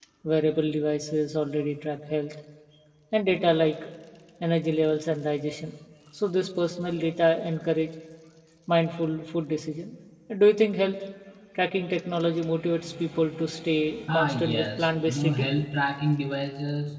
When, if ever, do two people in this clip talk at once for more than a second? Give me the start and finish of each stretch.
14.1-15.5

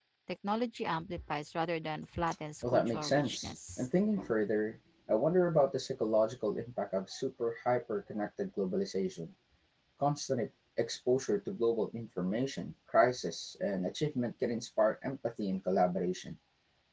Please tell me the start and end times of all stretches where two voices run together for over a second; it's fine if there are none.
2.6-3.9

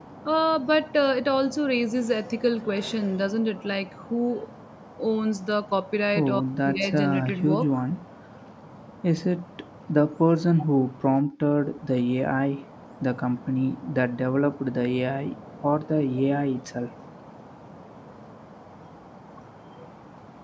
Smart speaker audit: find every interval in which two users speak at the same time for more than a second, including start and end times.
6.2-7.7

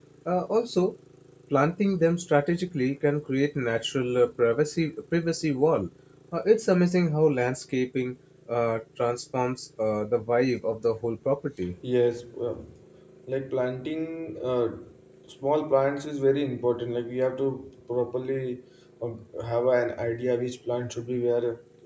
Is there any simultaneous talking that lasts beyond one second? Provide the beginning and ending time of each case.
none

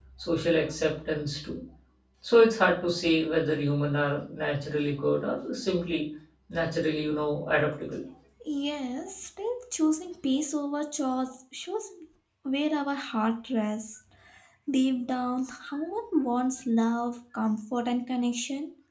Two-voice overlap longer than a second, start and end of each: none

